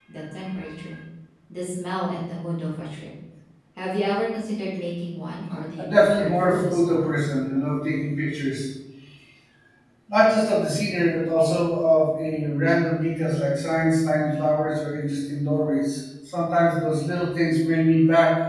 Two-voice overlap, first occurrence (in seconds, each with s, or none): 5.8 s